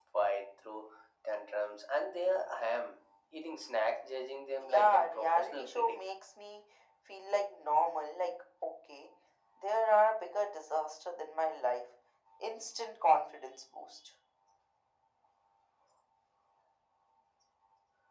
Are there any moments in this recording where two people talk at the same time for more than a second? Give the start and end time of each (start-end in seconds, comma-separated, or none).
4.6-6.0